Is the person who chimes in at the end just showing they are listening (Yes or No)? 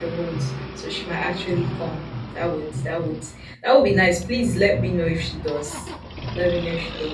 Yes